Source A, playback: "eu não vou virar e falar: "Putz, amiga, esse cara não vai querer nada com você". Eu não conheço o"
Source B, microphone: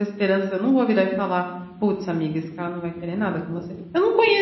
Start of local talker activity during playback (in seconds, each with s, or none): none